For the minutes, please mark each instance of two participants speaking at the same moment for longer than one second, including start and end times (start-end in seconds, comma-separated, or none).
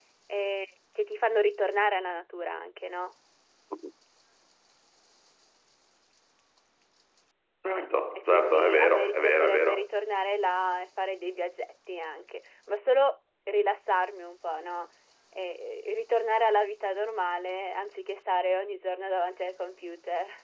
8.1-9.8